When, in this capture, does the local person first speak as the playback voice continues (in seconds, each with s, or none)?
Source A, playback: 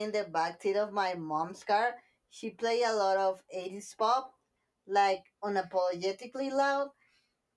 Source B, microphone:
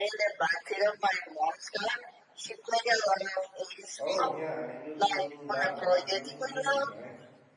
4.0 s